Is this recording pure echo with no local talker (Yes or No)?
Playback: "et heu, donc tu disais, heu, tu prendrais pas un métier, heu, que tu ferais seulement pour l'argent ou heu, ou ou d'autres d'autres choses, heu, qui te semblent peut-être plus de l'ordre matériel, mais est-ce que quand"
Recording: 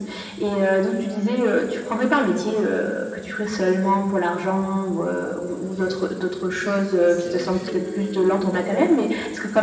No